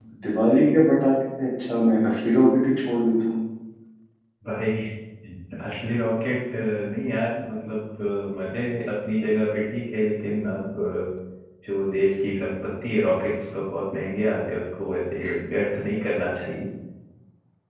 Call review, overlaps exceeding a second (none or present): none